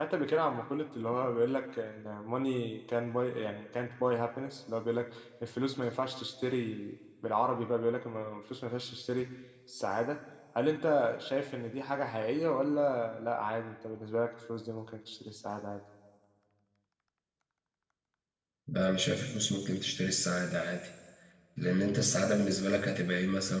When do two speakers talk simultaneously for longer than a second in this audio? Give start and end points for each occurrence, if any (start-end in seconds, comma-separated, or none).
none